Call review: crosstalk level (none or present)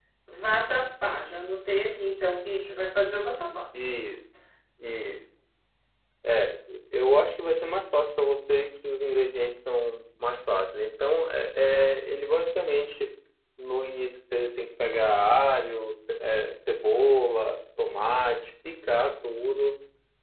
none